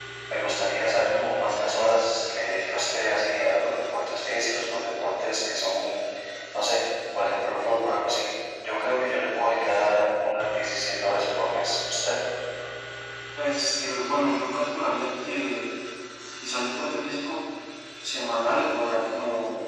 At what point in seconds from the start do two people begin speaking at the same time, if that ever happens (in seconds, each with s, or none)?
none